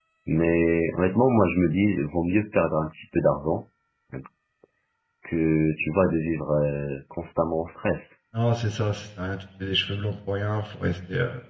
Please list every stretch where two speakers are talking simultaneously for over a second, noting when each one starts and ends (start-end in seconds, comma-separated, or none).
none